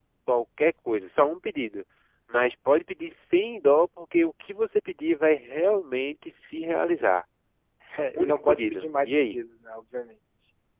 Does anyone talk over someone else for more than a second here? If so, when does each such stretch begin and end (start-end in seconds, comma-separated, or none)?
8.2-9.4